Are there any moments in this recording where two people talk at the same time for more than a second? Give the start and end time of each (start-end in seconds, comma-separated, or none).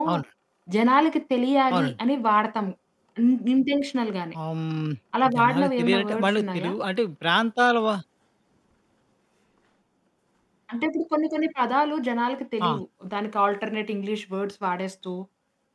5.3-6.7